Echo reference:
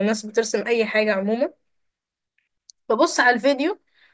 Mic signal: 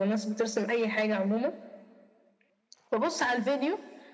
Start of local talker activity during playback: none

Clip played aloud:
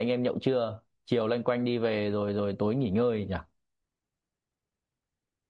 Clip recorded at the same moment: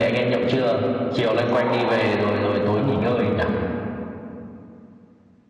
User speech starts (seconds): 1.5 s

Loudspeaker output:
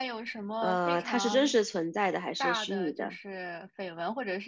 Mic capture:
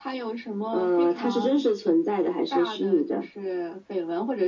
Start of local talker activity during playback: none

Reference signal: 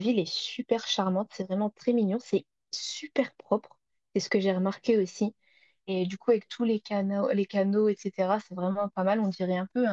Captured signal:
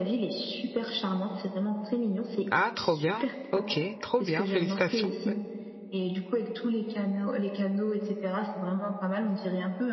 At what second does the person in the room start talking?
2.5 s

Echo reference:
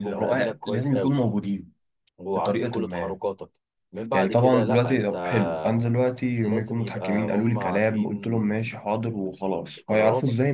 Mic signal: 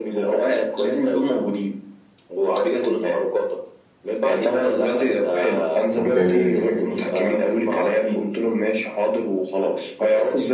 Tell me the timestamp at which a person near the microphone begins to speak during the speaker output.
6.0 s

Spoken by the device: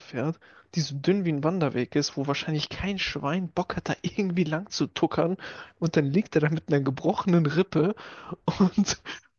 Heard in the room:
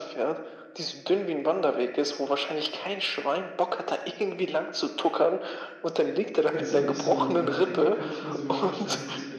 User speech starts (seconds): 6.5 s

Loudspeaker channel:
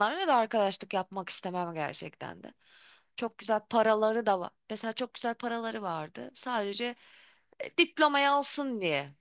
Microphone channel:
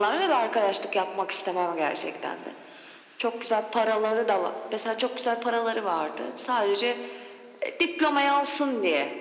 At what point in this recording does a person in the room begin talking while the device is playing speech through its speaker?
none

